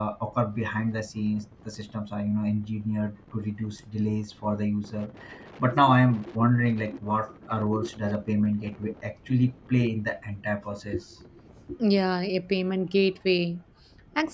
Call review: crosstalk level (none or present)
none